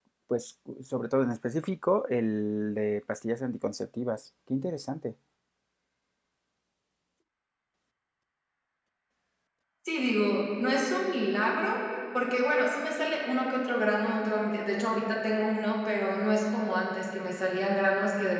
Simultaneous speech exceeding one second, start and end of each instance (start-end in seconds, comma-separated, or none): none